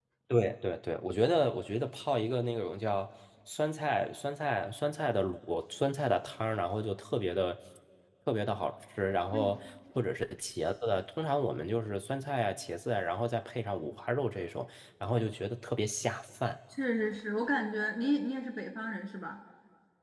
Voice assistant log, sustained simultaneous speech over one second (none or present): none